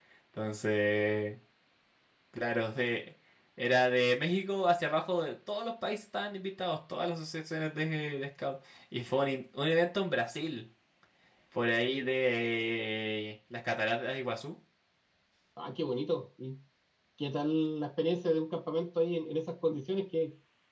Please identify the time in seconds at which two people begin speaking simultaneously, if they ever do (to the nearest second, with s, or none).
none